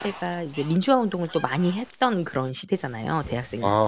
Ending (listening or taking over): taking over